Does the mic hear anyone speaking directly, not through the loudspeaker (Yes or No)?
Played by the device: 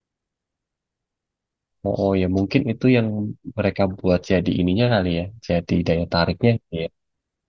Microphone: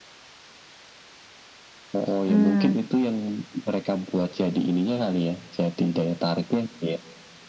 Yes